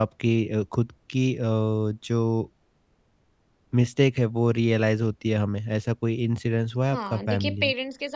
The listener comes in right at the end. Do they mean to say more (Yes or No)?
Yes